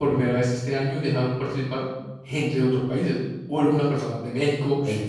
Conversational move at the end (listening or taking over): listening